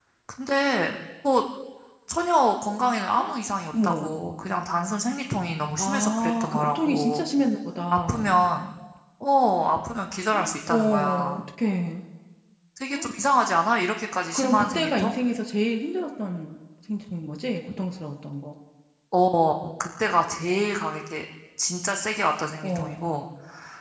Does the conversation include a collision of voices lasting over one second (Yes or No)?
Yes